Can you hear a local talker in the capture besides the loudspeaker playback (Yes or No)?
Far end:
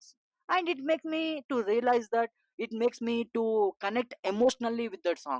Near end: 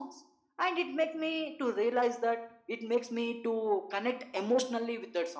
No